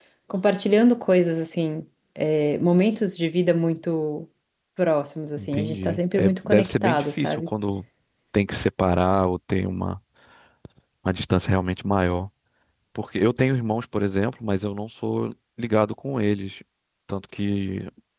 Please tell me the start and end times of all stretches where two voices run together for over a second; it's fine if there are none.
5.4-7.5

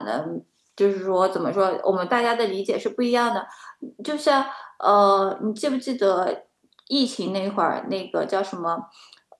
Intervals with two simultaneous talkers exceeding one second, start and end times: none

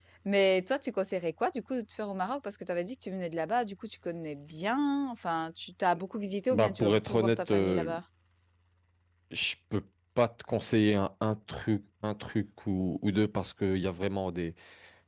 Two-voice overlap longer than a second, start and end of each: 6.5-7.9

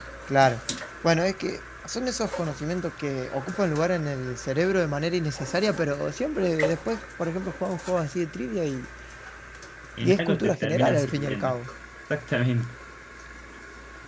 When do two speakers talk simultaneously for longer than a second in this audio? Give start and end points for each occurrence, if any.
10.0-11.6

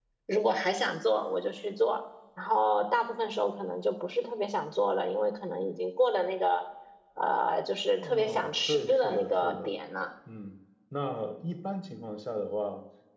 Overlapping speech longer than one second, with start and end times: 8.0-9.7

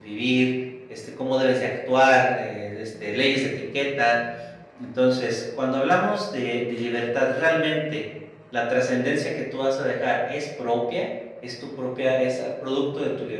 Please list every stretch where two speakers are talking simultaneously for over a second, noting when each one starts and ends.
none

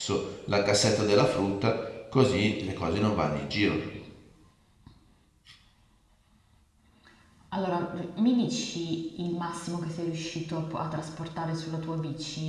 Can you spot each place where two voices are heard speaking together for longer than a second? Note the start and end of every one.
none

